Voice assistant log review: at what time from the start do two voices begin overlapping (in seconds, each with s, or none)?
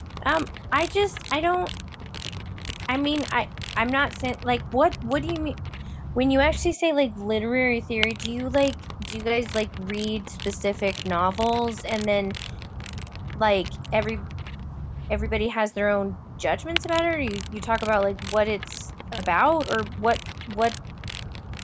none